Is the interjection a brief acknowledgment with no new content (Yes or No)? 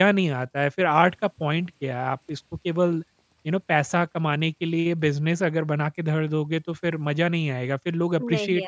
Yes